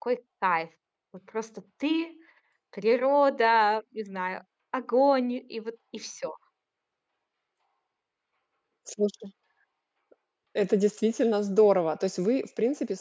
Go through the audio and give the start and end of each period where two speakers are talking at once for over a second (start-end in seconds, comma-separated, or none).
none